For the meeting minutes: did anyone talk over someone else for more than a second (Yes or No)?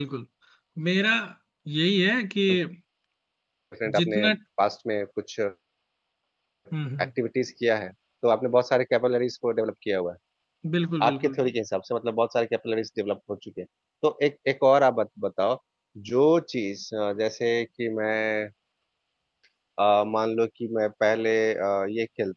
No